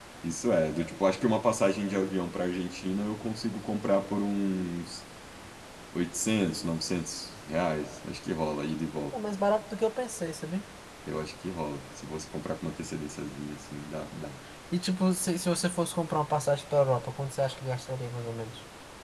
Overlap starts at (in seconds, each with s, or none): none